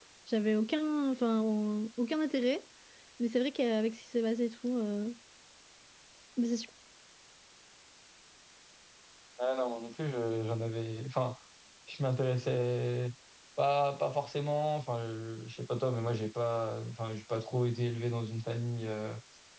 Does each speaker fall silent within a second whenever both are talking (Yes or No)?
Yes